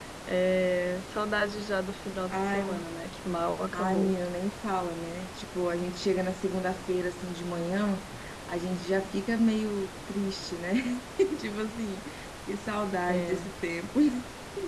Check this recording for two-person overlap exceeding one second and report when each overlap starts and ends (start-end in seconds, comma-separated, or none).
none